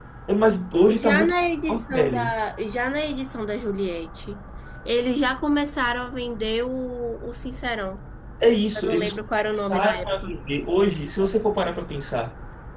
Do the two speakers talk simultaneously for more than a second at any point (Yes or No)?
Yes